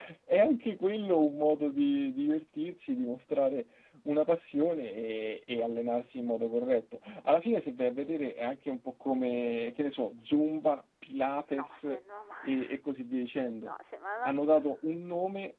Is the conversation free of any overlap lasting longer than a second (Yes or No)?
Yes